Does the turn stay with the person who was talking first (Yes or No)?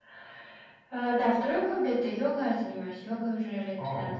Yes